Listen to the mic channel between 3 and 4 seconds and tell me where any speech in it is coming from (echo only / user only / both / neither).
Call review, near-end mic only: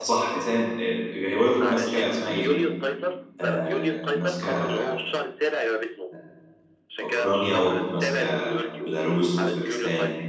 both